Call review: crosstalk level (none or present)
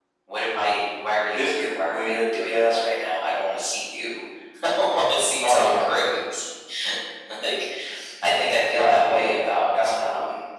present